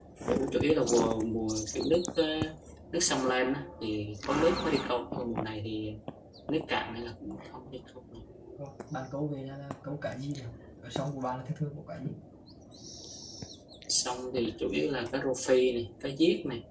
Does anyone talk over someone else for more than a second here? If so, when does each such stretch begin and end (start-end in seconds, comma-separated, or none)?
none